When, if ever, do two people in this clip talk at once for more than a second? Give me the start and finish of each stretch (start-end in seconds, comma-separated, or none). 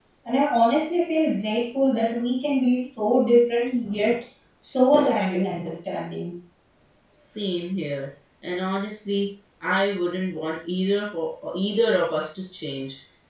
none